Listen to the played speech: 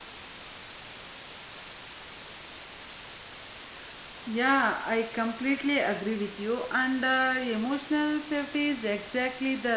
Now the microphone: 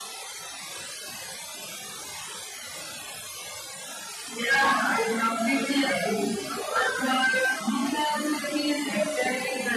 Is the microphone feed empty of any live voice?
Yes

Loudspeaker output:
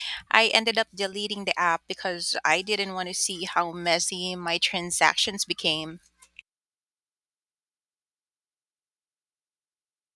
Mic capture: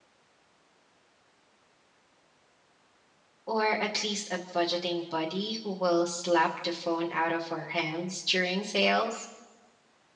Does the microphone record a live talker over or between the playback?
Yes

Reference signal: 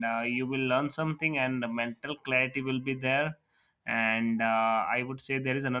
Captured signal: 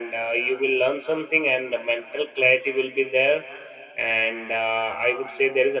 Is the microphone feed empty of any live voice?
Yes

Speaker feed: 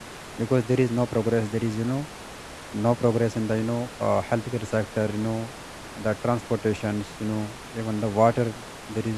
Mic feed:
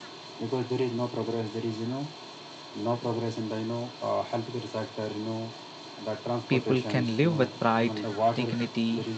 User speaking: Yes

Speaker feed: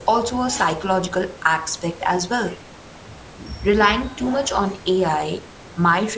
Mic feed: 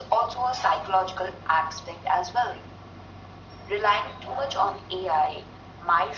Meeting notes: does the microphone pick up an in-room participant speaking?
No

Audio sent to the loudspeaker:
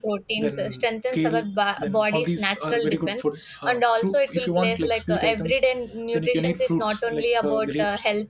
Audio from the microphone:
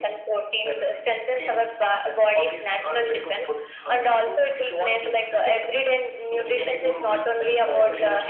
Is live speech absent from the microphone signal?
No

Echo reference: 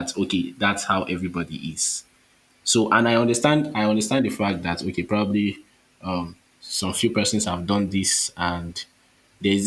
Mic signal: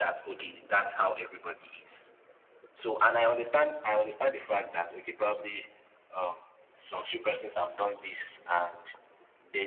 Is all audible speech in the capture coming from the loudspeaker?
Yes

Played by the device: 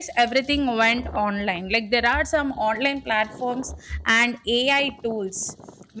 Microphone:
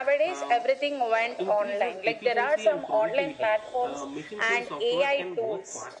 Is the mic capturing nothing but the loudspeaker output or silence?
No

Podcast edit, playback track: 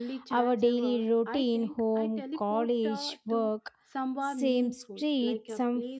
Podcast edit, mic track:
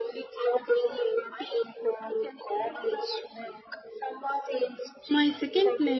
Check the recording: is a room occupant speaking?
Yes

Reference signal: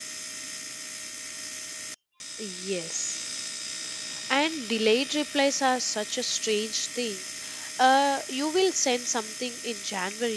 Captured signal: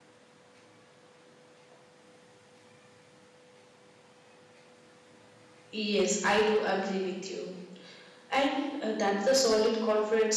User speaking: Yes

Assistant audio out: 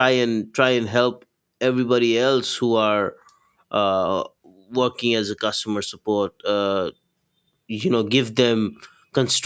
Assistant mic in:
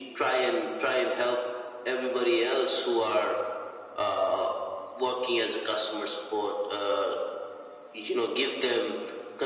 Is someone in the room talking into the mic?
No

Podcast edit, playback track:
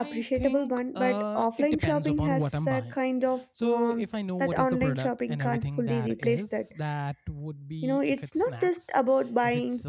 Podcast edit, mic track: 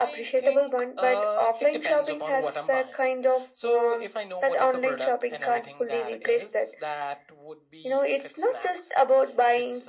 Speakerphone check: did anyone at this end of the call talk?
No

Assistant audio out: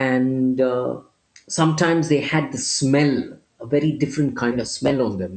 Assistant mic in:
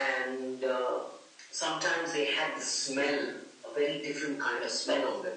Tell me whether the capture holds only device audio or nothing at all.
Yes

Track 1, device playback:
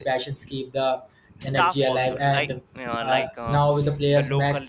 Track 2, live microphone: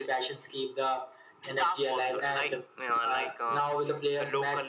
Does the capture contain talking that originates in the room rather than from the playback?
No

